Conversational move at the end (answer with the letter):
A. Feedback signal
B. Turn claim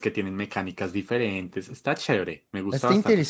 B